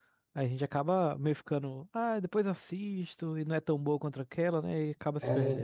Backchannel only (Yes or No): No